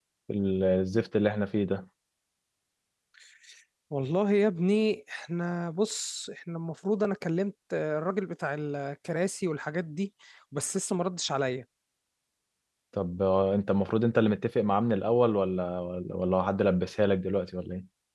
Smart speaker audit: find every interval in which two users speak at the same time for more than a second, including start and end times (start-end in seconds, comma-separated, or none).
none